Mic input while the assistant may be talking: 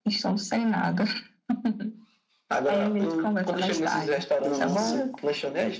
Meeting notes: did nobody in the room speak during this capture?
No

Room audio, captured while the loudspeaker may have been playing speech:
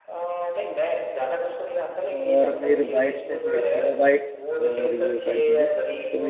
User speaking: Yes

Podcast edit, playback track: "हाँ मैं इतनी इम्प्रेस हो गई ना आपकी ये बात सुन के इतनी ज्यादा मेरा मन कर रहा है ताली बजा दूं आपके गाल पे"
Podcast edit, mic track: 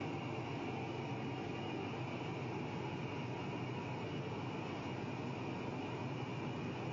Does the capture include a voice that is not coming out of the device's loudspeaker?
No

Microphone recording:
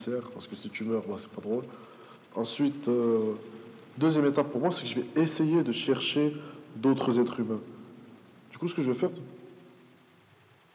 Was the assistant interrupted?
No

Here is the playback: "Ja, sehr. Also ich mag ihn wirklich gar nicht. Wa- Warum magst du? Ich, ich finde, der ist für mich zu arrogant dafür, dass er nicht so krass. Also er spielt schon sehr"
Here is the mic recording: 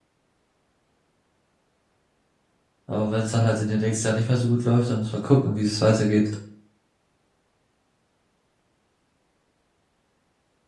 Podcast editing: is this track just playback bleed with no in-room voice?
No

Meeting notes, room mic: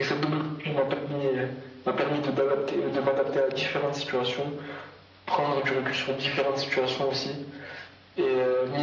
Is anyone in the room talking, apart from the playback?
No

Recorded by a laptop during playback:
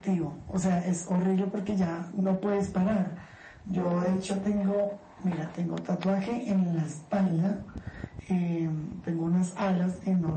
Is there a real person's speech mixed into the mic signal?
No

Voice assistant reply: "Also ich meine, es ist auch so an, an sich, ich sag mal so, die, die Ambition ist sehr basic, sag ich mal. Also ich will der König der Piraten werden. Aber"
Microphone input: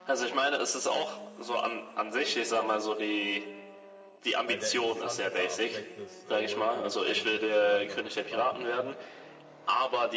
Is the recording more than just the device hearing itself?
Yes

